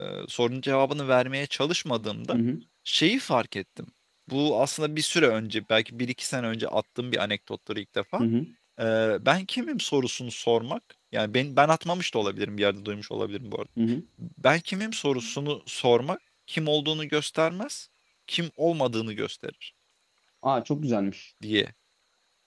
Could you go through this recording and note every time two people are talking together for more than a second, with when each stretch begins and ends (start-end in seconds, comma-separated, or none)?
none